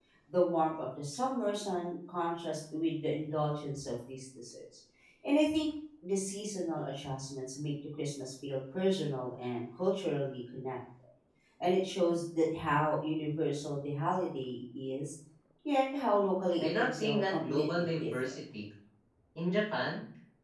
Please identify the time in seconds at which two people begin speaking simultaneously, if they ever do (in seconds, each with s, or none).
16.6 s